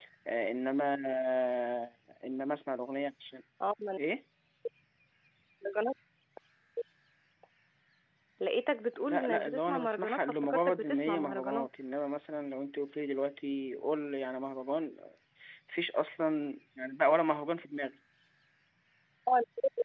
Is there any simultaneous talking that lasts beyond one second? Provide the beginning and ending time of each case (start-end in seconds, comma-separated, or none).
9.1-11.7